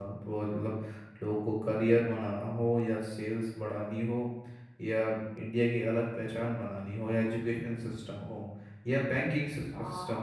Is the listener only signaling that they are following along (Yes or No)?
Yes